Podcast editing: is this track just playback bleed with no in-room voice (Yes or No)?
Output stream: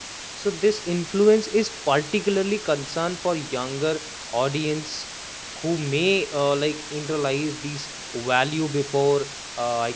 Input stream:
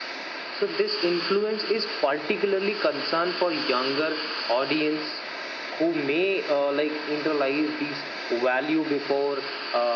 Yes